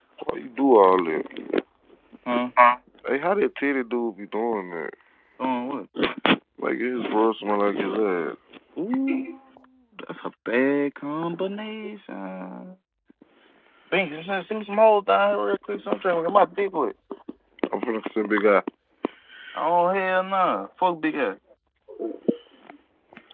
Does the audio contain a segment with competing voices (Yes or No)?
No